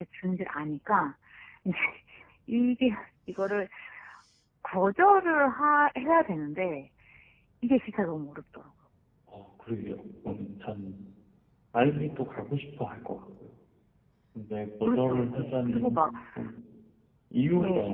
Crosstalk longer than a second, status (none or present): present